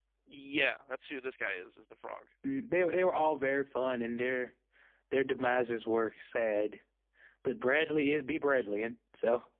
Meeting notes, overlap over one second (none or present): none